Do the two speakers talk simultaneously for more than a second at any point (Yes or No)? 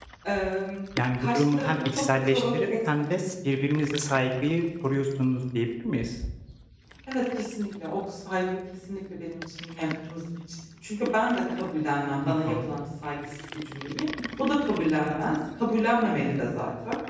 Yes